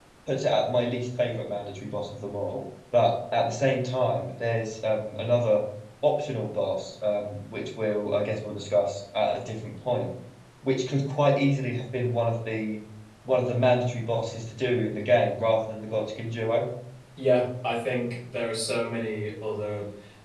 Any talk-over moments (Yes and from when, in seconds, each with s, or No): No